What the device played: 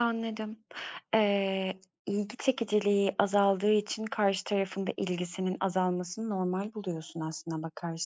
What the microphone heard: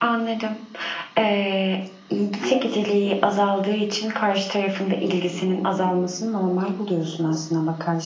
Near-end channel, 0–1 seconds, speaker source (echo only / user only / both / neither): echo only